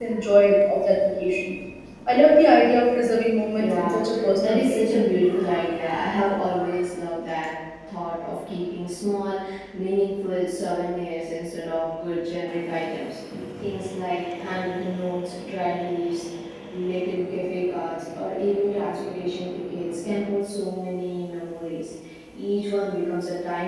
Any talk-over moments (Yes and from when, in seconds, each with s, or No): Yes, from 3.5 s